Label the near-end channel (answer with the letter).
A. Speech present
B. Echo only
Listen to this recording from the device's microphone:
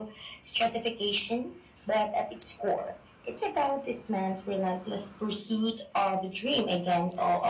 B